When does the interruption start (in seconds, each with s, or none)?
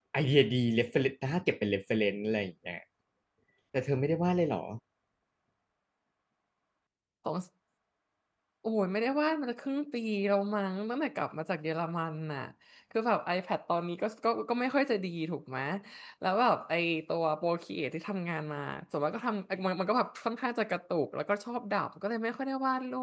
none